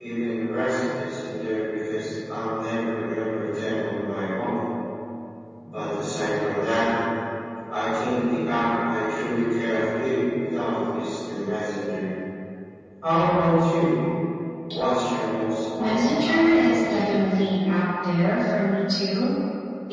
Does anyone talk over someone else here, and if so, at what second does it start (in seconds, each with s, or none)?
15.8 s